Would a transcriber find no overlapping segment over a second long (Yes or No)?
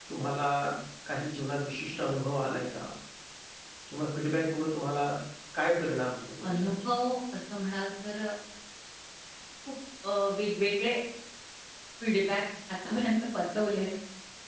Yes